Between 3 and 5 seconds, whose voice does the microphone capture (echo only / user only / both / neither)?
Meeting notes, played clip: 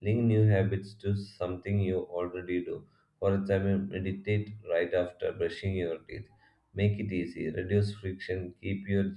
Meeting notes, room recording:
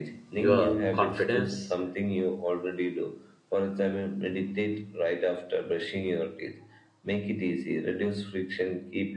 echo only